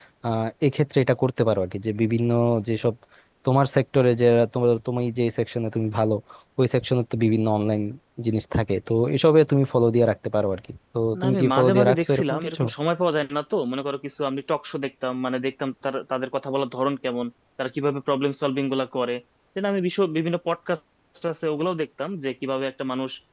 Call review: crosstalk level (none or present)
present